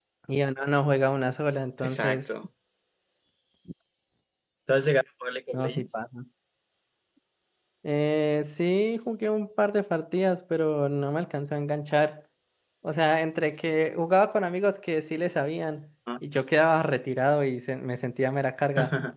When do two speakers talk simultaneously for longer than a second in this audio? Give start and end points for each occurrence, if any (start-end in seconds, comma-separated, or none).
none